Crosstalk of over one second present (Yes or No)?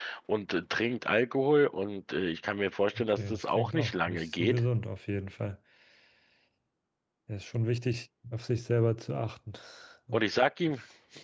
Yes